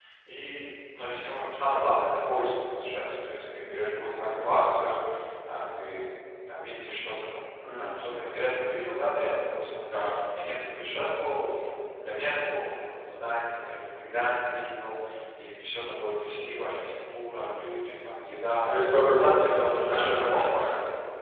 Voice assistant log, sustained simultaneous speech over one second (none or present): present